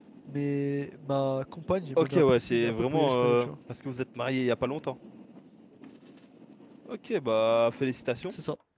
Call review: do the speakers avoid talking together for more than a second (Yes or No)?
No